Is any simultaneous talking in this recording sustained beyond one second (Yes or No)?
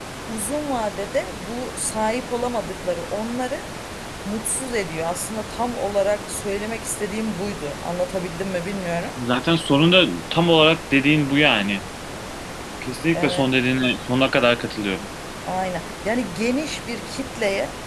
No